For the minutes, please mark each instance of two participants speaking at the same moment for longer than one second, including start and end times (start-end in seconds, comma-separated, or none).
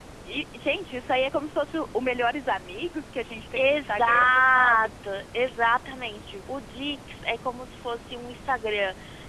3.6-4.9